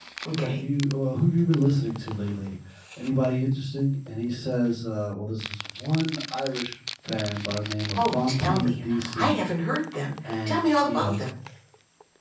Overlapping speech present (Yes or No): Yes